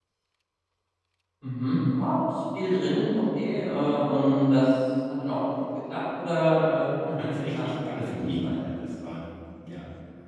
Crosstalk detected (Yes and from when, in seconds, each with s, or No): Yes, from 7.2 s